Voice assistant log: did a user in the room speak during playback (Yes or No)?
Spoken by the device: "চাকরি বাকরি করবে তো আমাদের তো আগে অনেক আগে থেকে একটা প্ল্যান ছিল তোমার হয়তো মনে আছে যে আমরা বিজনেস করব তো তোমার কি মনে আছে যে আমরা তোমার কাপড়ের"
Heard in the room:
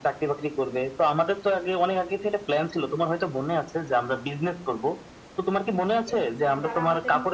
Yes